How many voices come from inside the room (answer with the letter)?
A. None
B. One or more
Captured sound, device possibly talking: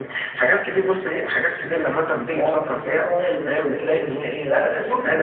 B